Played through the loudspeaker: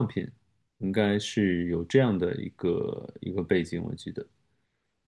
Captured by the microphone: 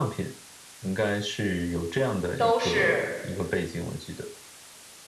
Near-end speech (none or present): present